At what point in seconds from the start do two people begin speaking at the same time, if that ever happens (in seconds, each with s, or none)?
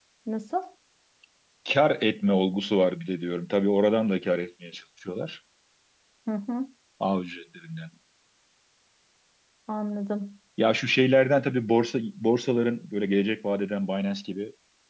none